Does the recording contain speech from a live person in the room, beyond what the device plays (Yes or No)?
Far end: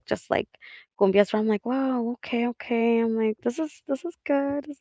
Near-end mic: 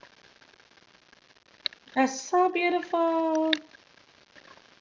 Yes